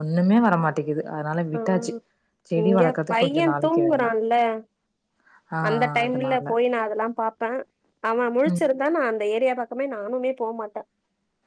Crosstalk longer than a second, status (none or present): present